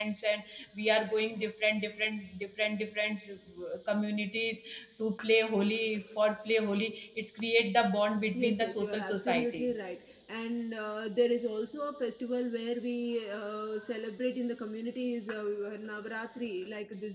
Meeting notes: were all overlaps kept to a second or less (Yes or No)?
No